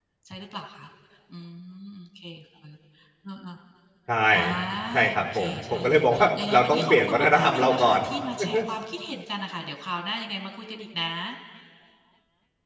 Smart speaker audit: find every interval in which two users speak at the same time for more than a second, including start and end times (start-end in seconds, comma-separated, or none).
5.1-8.0